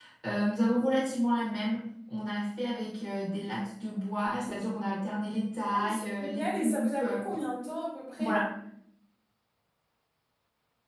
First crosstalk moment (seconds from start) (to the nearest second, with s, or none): 6 s